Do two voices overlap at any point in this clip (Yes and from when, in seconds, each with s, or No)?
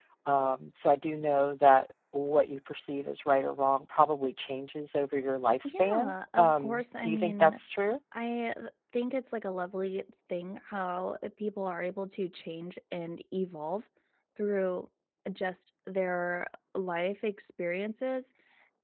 Yes, from 5.6 s